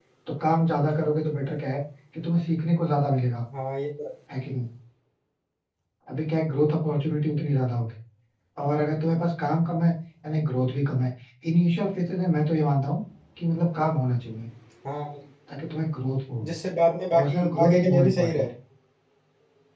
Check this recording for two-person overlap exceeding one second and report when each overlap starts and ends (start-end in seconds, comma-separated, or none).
17.1-18.4